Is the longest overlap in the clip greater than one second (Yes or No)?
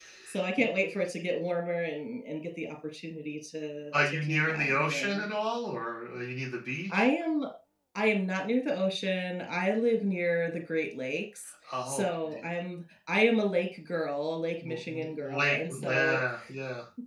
Yes